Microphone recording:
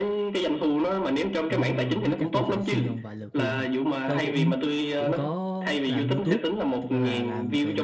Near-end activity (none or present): present